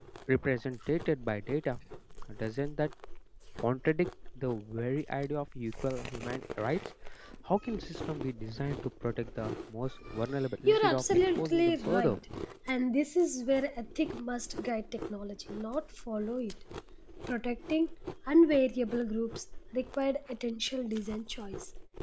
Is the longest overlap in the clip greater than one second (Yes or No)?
Yes